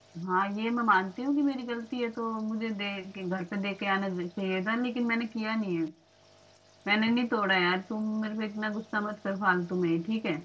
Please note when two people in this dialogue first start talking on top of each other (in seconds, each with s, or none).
none